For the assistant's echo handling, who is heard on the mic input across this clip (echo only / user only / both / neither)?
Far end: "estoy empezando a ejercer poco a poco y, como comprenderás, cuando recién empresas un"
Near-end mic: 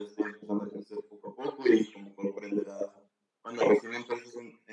echo only